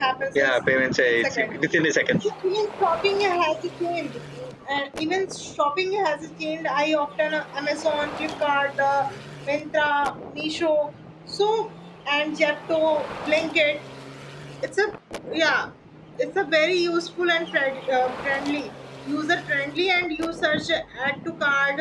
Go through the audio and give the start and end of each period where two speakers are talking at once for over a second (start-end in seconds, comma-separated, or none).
none